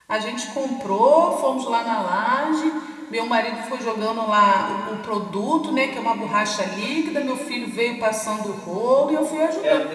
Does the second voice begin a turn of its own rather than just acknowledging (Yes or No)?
Yes